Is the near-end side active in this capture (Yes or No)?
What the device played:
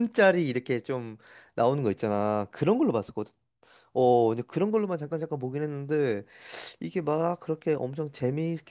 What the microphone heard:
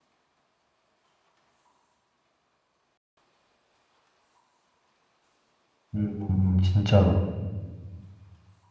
Yes